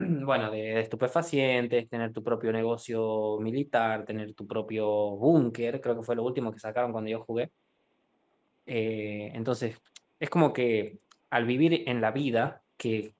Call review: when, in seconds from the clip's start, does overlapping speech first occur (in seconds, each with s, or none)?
none